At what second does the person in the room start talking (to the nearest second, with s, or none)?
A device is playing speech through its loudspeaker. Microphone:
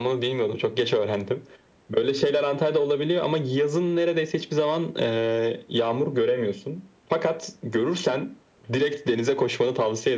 none